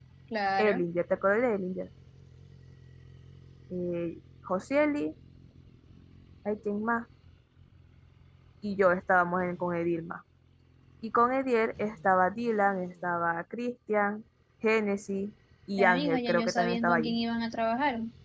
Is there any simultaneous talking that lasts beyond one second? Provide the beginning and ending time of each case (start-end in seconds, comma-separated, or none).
15.8-17.2